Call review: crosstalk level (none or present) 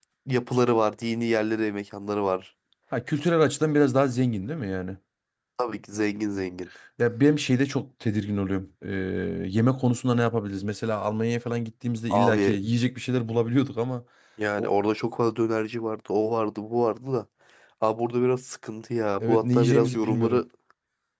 present